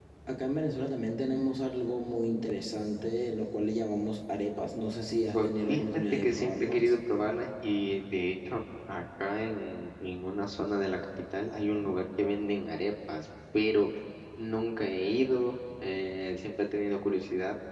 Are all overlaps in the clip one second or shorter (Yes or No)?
No